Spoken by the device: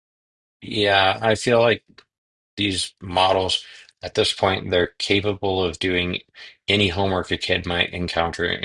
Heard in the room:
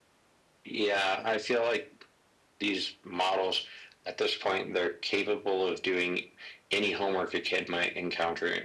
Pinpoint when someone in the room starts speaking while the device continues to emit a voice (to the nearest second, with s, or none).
none